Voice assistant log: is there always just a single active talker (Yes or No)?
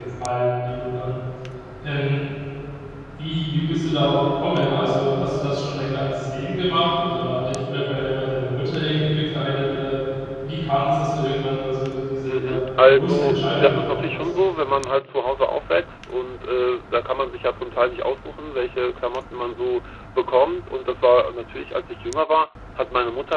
No